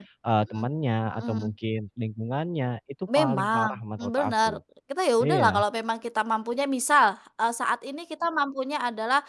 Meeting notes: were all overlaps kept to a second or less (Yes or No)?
No